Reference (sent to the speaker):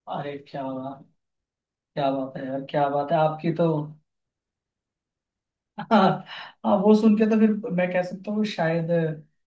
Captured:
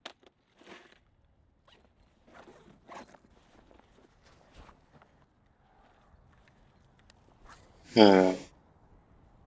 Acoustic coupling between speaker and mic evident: No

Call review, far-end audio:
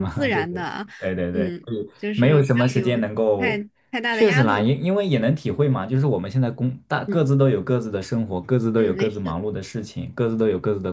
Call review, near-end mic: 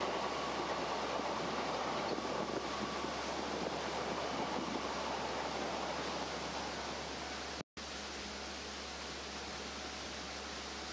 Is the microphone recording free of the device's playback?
Yes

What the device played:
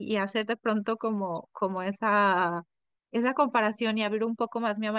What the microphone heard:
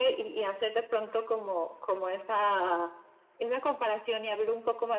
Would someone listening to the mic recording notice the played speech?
Yes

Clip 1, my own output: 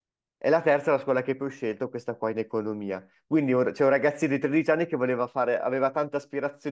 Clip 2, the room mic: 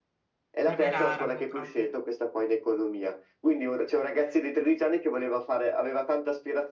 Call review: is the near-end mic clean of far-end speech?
No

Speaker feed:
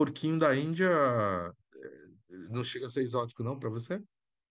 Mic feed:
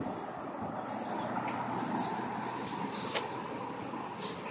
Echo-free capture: Yes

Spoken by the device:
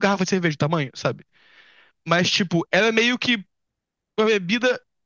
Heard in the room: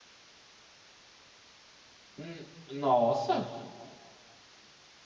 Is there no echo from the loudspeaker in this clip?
Yes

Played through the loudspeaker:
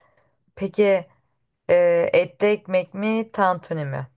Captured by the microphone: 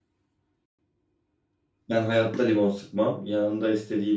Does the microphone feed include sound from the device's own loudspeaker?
No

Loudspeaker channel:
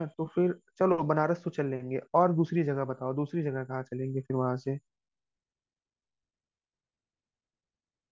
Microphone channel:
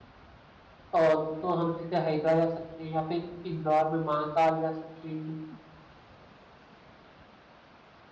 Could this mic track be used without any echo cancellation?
Yes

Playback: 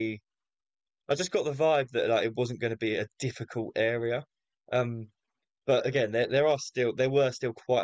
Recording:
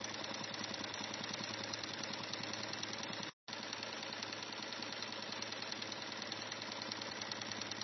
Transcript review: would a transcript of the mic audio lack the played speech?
Yes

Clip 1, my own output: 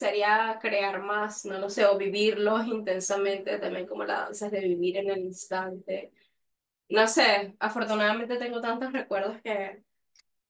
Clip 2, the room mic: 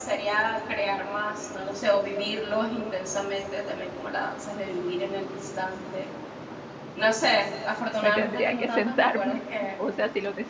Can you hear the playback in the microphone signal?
Yes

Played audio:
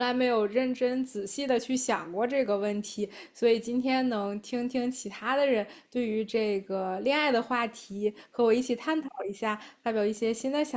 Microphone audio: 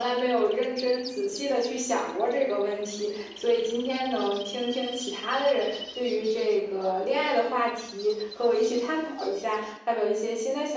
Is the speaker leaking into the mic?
Yes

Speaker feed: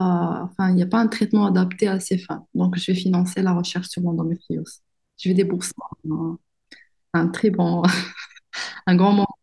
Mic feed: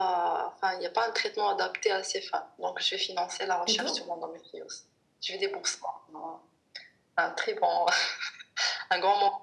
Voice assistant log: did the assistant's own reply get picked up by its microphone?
Yes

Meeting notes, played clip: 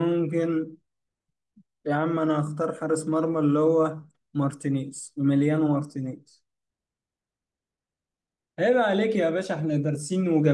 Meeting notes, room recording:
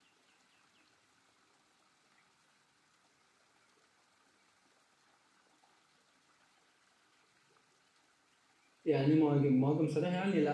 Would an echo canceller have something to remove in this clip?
No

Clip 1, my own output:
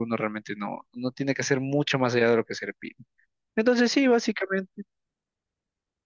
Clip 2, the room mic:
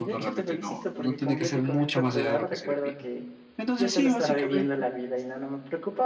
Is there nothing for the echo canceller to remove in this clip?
No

